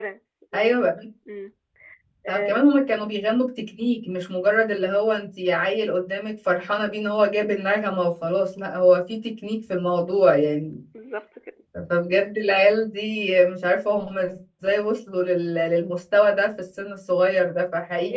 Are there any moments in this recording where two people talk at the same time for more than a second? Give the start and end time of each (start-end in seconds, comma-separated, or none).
none